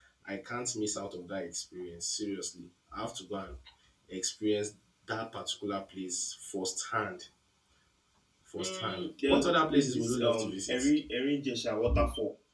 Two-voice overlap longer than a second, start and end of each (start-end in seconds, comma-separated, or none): 8.6-10.9